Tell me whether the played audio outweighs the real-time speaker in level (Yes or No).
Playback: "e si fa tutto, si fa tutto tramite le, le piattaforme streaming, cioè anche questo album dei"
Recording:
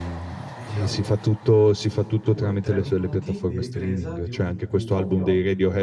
Yes